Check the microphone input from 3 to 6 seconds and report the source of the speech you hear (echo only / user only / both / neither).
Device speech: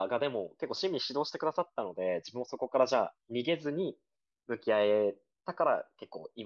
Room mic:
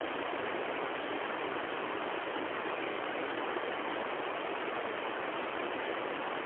neither